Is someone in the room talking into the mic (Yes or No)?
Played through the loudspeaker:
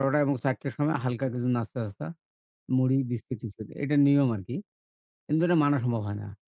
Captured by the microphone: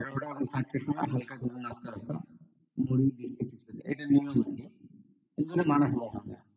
No